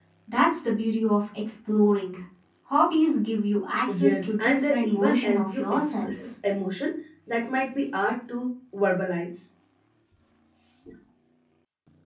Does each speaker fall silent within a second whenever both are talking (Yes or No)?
No